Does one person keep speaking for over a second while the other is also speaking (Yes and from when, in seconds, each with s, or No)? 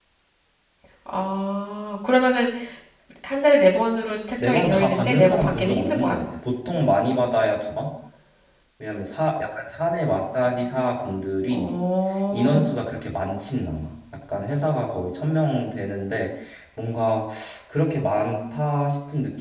Yes, from 4.4 s